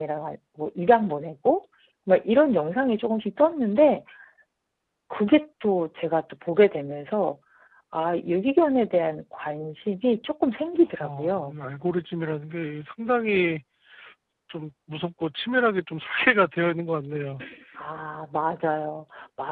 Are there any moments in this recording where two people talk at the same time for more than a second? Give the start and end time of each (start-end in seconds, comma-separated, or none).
none